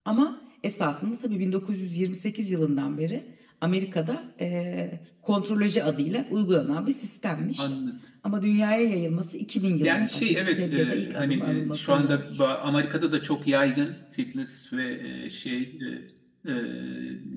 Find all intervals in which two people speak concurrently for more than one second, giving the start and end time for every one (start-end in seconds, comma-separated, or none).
9.8-12.5